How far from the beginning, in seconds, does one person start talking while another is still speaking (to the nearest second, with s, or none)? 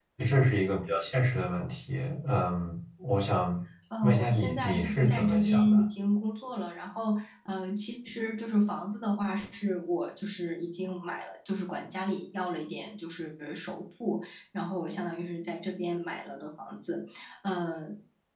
4 s